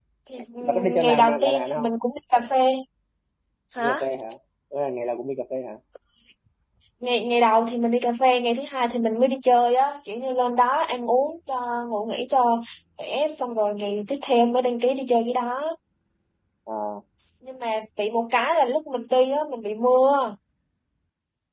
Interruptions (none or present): present